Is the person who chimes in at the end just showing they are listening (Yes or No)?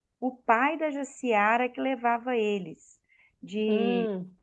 Yes